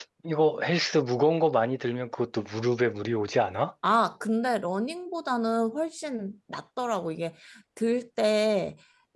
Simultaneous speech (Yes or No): No